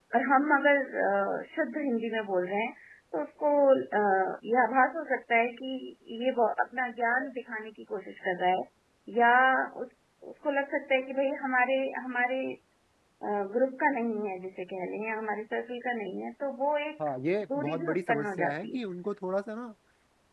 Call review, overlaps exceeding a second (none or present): present